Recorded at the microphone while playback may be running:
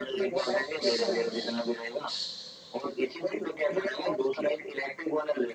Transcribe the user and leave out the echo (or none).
स, स, स, स-